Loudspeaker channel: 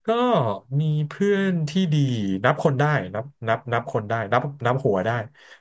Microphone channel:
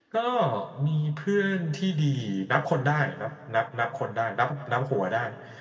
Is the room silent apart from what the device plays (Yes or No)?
Yes